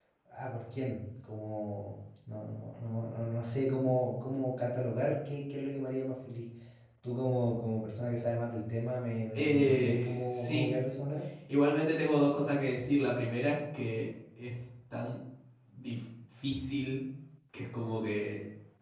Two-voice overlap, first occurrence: 9.3 s

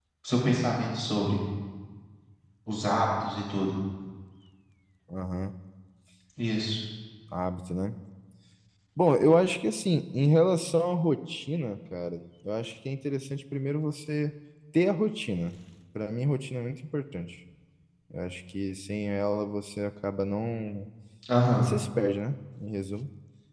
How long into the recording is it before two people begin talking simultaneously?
none

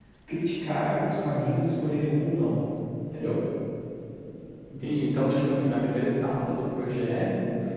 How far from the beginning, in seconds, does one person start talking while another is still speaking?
none

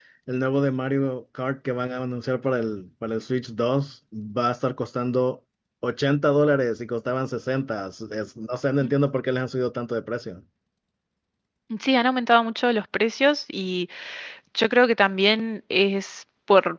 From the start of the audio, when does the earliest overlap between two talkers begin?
none

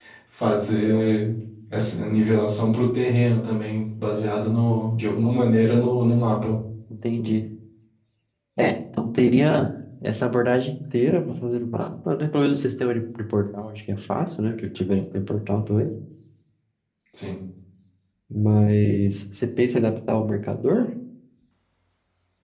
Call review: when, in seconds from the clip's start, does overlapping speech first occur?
none

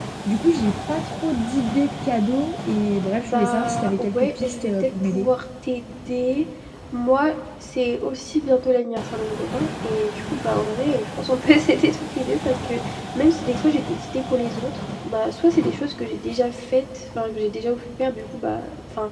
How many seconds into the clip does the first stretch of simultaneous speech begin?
3.3 s

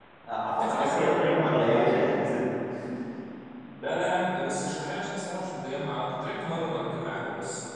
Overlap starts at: 0.6 s

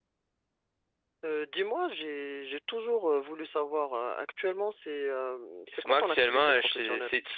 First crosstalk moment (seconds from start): 5.7 s

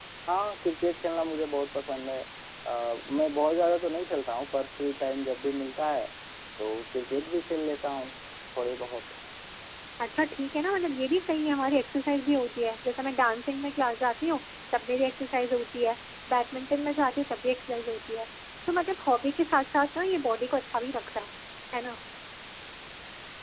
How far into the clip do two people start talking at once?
none

